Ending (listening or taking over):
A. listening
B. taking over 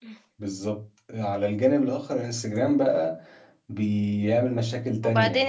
B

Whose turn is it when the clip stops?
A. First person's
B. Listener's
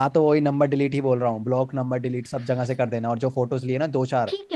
B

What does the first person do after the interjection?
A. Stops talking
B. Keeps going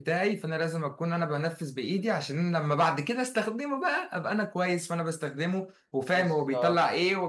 B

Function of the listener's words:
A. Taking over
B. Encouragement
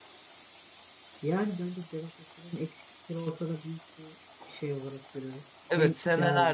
A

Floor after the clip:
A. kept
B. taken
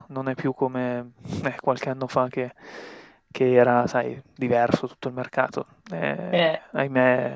A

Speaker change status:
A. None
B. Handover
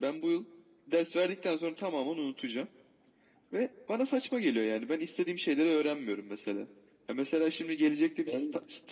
A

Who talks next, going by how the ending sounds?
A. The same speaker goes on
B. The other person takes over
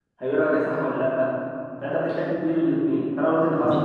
A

